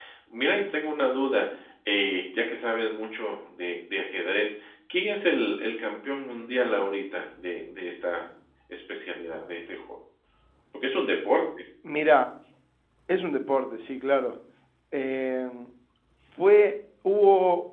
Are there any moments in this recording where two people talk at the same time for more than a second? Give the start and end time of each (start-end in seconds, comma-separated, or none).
none